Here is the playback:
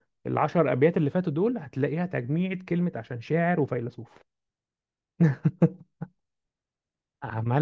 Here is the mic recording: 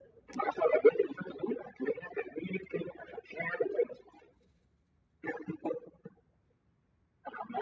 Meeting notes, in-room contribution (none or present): none